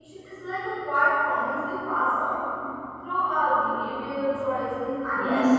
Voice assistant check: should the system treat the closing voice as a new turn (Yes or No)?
Yes